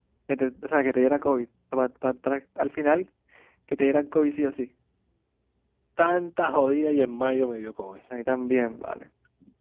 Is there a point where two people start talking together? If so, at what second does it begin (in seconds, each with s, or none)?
none